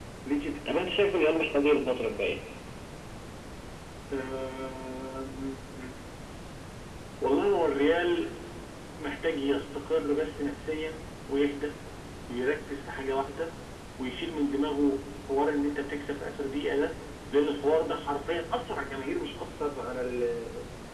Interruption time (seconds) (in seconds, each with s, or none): none